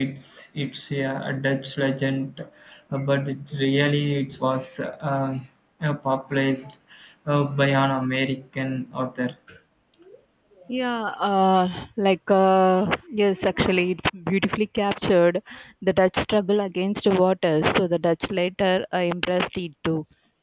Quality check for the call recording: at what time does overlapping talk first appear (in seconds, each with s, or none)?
none